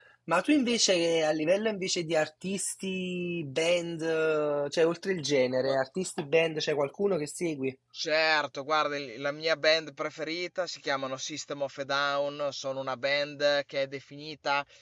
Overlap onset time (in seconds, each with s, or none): none